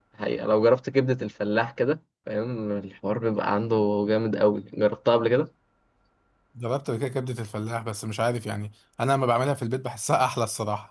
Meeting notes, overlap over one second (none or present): none